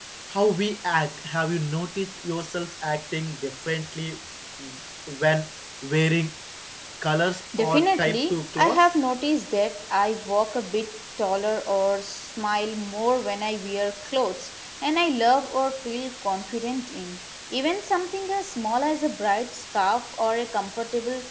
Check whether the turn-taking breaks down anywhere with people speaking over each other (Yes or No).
Yes